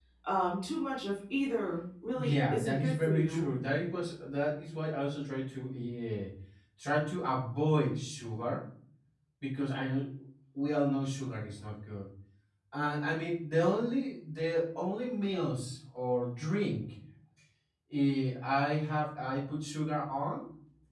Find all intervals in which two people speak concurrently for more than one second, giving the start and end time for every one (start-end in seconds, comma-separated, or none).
2.1-3.5